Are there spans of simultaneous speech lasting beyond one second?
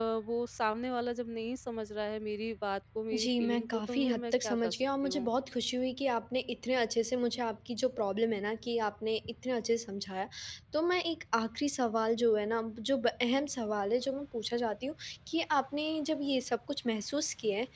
Yes, from 3.1 s

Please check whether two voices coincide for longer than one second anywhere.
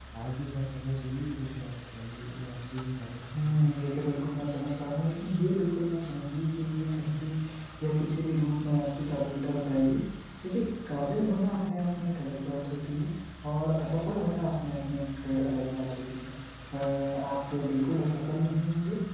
No

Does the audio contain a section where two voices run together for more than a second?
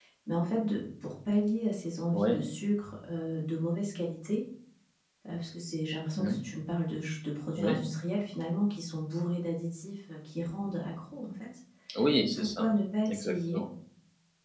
No

